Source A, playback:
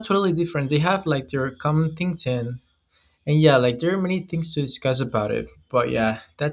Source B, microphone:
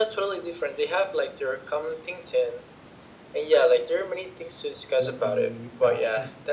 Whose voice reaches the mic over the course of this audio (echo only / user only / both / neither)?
both